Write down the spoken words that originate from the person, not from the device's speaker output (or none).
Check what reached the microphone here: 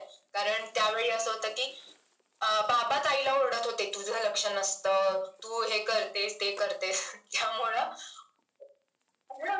none